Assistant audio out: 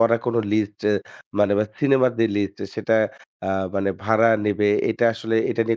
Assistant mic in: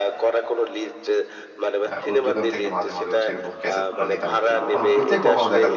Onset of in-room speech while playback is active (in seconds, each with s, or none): 1.9 s